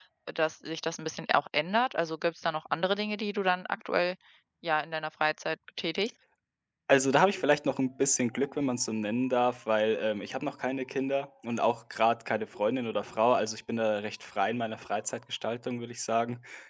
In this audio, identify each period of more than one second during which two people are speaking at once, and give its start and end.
none

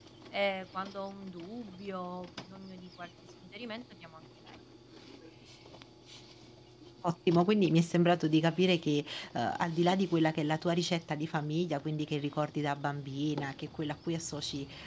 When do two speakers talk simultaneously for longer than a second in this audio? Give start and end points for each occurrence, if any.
none

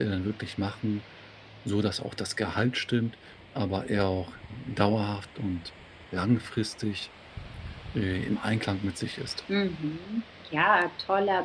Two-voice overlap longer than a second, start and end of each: none

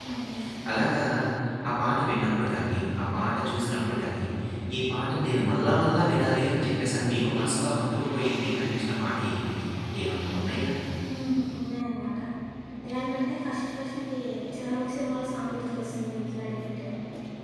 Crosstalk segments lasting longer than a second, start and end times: none

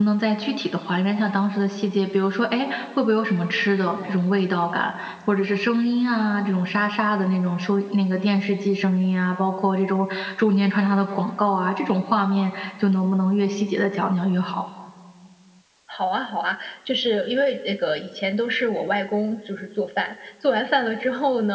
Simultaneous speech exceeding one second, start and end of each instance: none

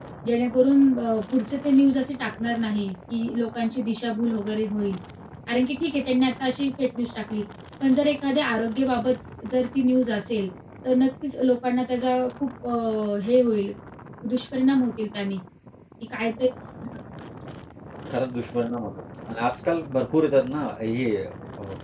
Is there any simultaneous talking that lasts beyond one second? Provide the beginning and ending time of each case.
none

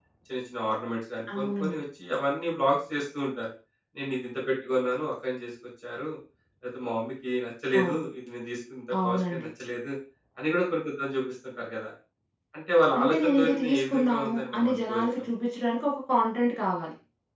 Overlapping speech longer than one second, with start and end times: 13.0-15.0

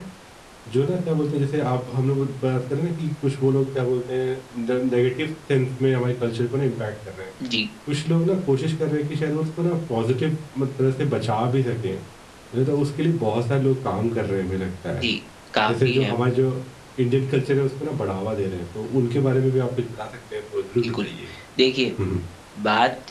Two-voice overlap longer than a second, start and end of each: none

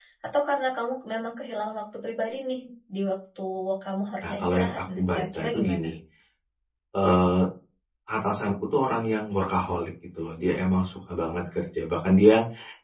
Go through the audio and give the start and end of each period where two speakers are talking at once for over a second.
4.2-5.9

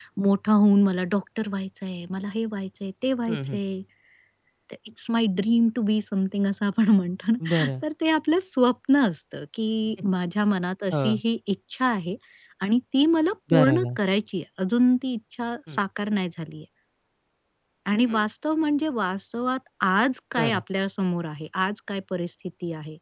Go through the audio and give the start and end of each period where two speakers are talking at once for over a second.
none

